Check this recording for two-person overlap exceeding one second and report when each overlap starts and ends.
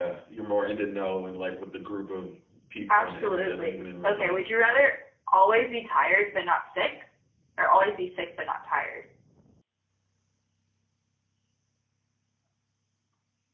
2.9-4.4

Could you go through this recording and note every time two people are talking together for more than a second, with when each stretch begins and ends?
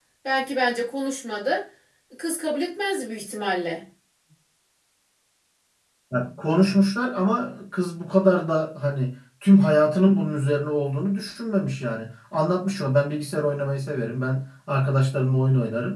none

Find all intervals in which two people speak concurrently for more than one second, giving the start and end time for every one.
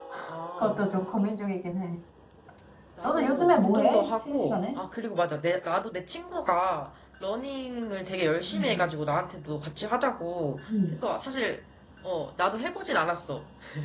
3.0-4.6

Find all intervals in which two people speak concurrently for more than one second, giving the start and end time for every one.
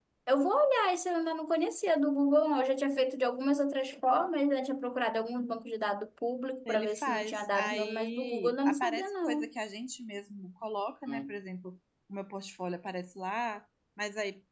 6.7-9.5

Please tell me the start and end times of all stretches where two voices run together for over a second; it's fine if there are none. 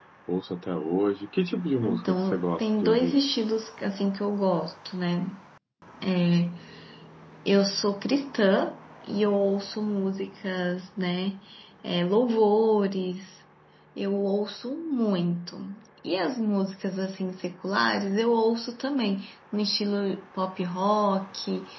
1.8-3.2

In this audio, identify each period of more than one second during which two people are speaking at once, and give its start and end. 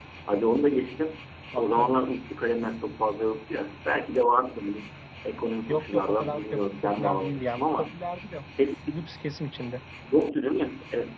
5.7-8.0

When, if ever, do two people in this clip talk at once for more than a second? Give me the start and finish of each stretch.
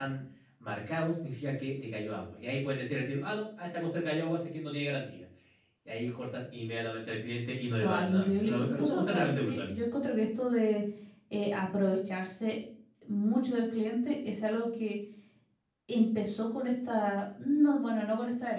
7.8-9.7

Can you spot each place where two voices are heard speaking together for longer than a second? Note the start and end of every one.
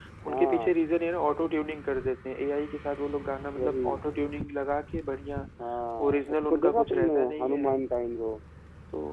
6.1-7.7

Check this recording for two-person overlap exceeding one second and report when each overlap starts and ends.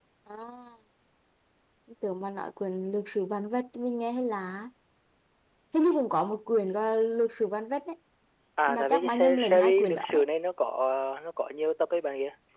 8.7-10.2

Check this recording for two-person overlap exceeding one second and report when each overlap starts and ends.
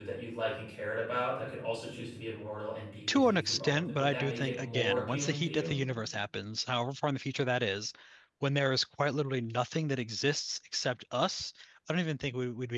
3.1-5.7

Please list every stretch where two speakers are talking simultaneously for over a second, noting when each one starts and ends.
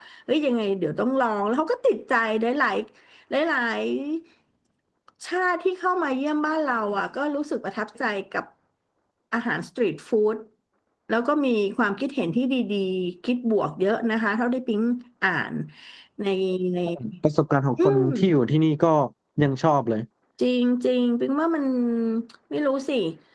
none

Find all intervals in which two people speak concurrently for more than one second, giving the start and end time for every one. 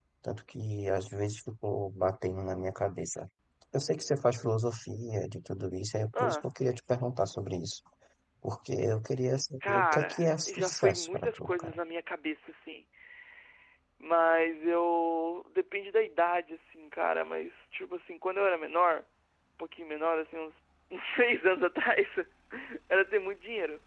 9.7-11.8

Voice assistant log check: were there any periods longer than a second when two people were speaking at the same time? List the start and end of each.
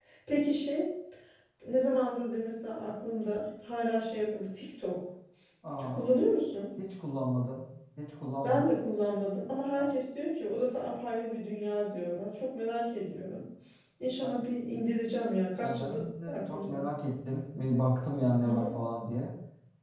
15.6-16.9

